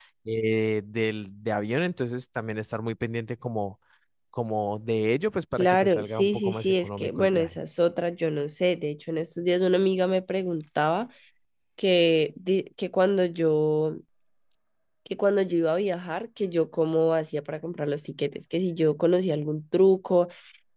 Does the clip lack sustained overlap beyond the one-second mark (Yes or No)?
No